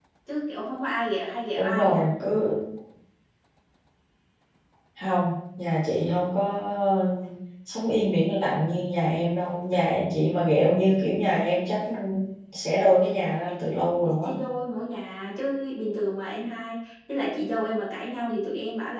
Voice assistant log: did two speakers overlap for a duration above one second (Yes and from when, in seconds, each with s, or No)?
No